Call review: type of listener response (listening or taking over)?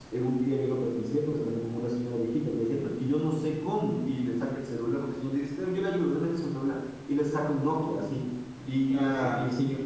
listening